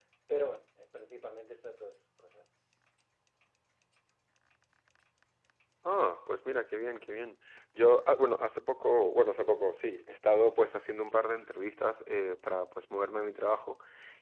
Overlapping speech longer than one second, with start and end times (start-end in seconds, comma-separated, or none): none